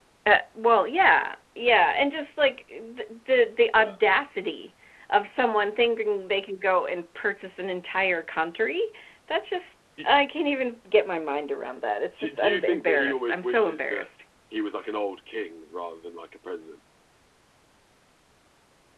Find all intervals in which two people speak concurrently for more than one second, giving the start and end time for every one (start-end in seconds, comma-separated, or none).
12.2-14.1